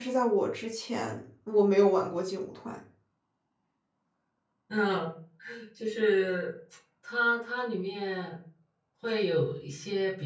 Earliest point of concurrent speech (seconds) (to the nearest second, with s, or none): none